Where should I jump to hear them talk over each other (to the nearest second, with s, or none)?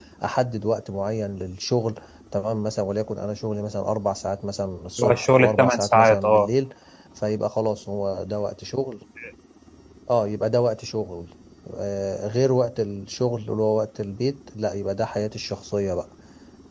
5 s